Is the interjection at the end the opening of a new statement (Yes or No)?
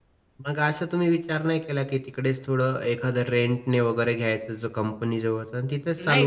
Yes